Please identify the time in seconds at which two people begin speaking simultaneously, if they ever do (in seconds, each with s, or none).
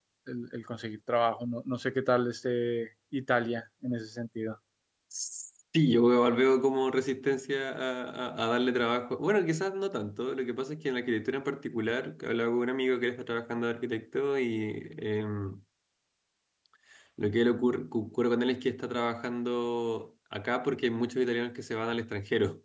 none